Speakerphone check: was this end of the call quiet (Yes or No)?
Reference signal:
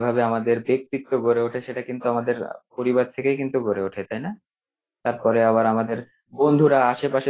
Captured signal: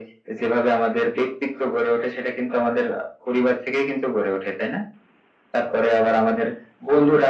Yes